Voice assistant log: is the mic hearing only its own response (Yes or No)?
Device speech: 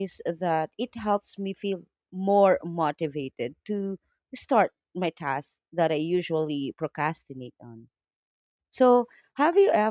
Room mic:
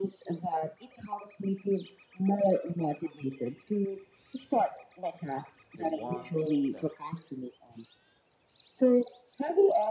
No